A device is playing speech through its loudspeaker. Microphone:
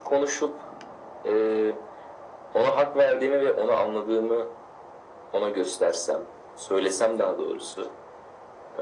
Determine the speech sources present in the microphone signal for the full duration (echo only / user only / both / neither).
echo only